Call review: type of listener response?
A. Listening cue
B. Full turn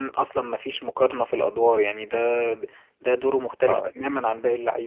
A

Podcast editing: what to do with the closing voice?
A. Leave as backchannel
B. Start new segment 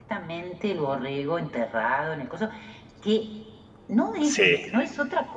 A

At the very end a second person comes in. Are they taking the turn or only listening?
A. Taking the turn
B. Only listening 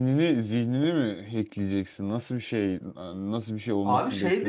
A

